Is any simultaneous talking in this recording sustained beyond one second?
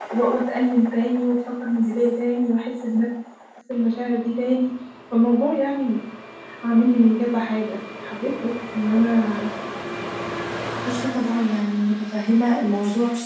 No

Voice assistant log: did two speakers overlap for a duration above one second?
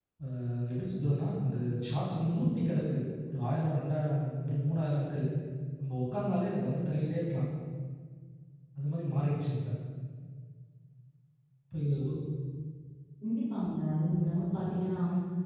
No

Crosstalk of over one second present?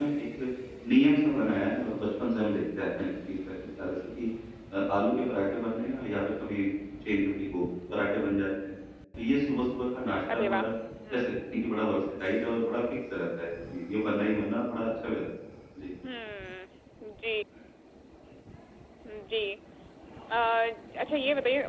No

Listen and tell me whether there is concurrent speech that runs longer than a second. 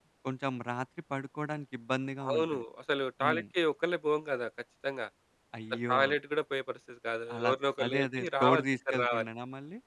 Yes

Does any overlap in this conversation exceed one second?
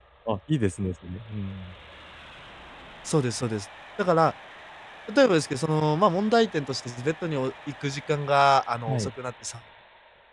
No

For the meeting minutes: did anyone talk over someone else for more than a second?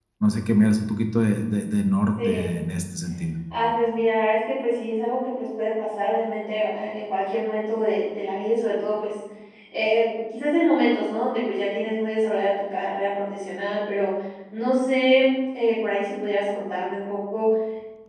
No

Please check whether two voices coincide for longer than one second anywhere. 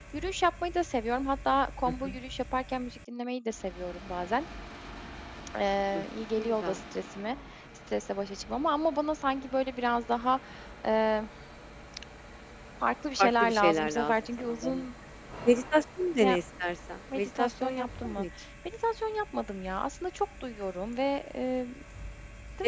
Yes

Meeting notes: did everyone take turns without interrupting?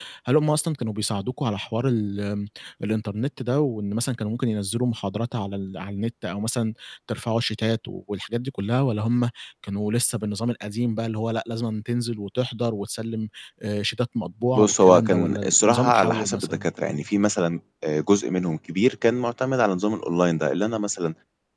No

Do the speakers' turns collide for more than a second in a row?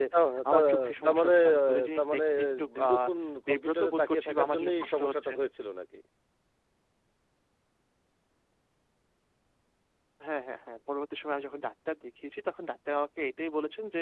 Yes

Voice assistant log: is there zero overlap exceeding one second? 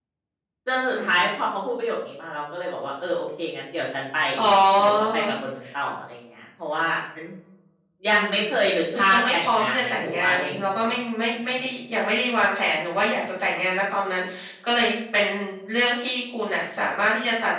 No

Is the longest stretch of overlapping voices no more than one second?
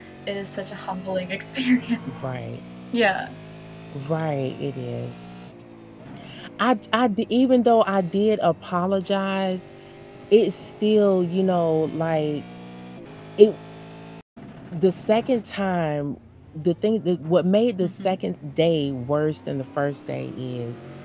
Yes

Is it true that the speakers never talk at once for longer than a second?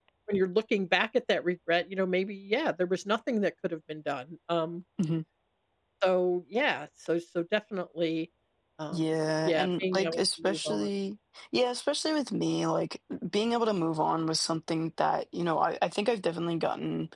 No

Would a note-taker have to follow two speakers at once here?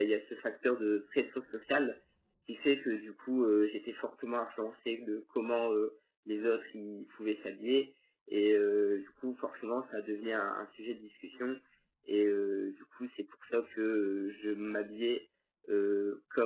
No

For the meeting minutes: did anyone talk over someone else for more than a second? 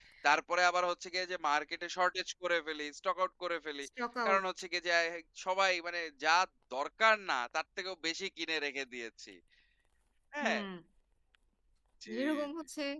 No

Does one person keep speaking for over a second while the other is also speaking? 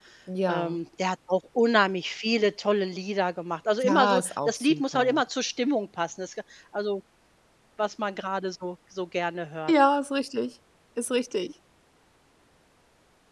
Yes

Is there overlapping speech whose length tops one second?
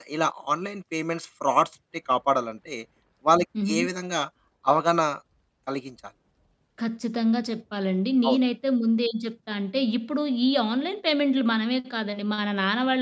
No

